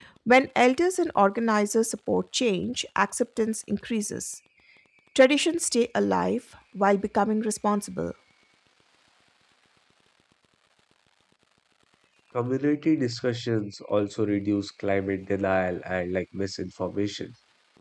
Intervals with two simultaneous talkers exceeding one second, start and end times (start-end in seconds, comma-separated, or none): none